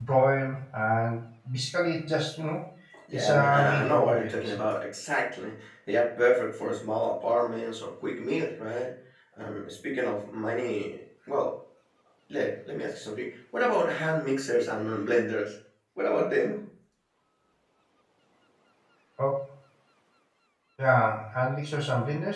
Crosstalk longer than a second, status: present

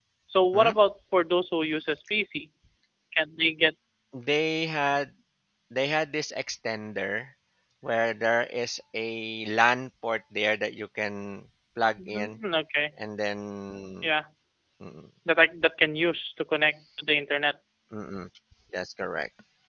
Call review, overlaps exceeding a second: none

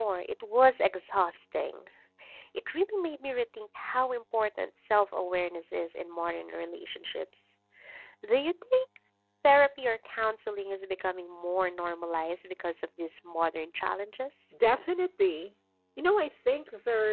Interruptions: none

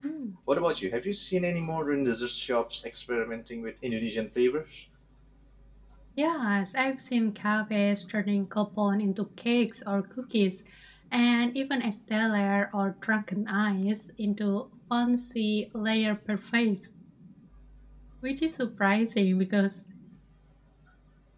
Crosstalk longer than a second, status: none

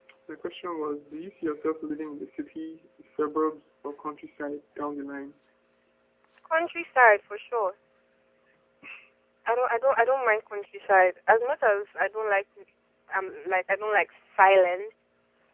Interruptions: none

